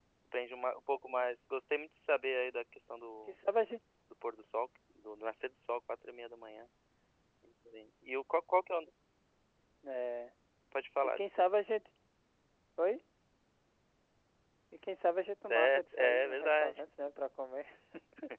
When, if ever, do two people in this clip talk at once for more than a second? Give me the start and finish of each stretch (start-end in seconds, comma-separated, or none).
15.5-16.8